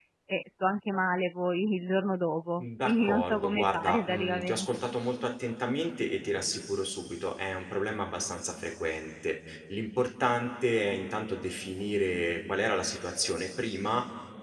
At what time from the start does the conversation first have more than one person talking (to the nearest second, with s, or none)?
3 s